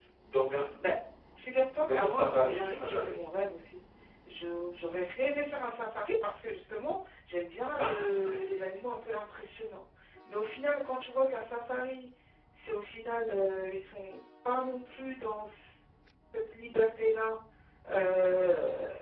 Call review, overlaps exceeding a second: present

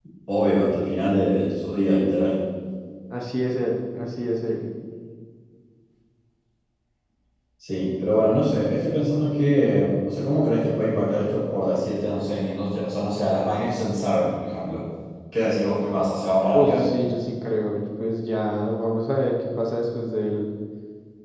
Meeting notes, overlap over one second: none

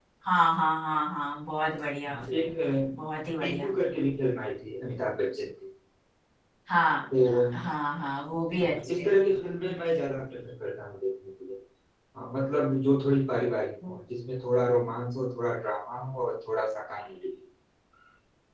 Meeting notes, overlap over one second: none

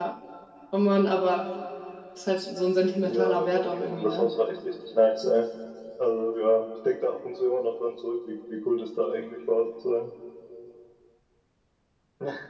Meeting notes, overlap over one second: present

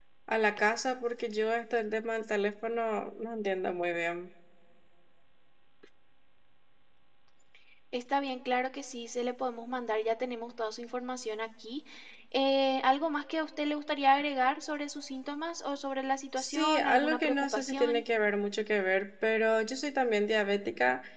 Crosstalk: present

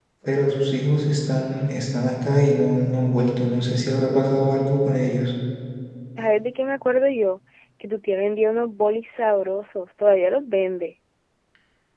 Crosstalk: none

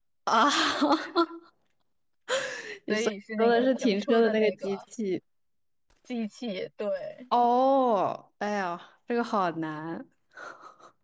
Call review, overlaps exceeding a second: present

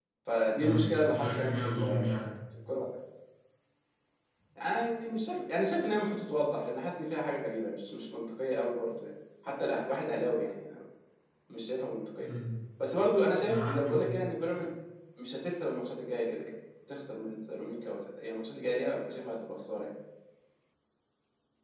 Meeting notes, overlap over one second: present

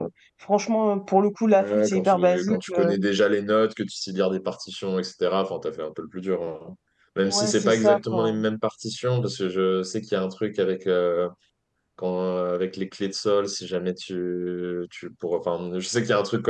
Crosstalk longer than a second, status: present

